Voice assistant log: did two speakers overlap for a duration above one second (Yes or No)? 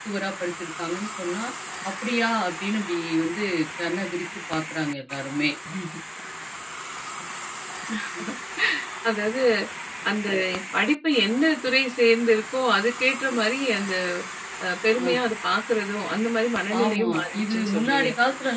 Yes